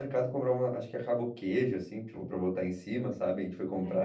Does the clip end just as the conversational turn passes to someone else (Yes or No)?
No